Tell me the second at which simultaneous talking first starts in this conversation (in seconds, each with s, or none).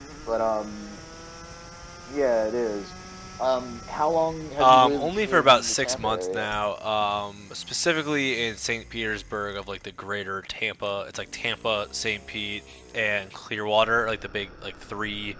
4.6 s